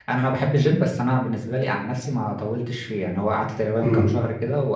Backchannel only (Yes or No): Yes